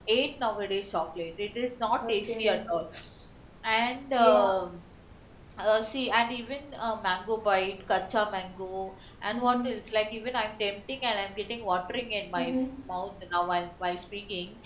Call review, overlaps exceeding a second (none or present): none